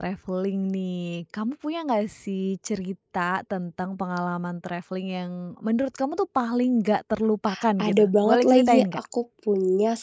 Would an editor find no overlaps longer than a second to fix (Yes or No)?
No